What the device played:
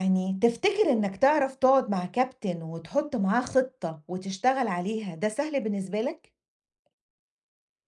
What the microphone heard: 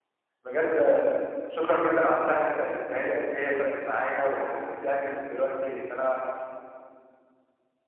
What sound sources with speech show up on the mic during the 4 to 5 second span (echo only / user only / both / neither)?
user only